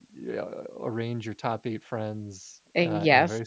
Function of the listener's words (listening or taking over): listening